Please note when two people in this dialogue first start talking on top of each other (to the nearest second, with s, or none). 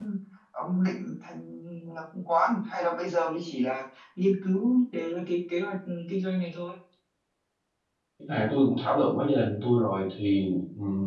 none